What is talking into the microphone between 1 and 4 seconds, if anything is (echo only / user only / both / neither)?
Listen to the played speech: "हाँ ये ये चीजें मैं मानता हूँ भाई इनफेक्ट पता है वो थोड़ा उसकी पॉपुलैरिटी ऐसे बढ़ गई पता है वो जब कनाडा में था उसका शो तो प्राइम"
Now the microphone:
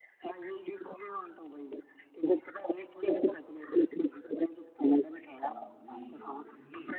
echo only